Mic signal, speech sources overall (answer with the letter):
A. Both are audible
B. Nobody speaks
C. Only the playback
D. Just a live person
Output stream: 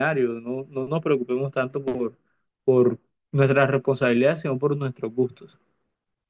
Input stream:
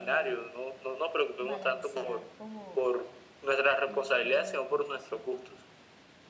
A